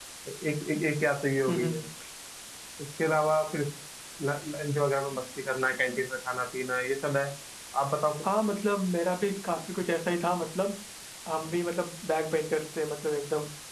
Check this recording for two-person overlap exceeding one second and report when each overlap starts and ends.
none

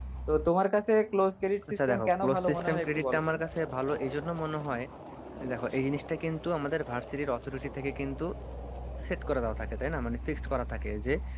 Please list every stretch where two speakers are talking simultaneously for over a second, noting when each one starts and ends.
1.7-3.4

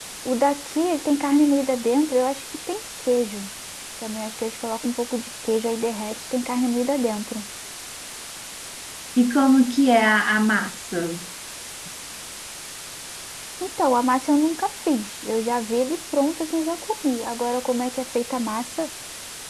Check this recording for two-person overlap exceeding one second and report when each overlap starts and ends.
none

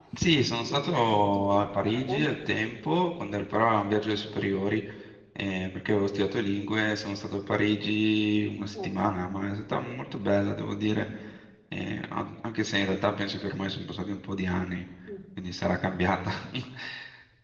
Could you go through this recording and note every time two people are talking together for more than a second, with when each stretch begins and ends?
0.7-2.2

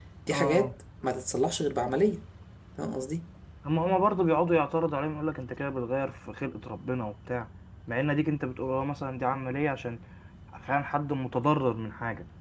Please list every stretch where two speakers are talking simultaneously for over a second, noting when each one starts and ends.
none

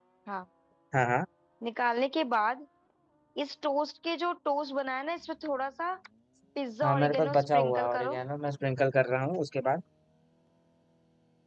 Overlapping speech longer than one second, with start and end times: 6.8-8.2

